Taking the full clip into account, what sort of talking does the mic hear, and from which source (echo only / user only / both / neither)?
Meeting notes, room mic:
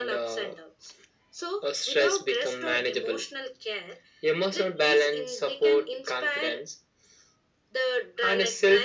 echo only